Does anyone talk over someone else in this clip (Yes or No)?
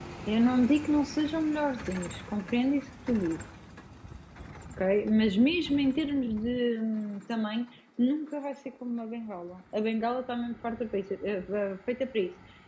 No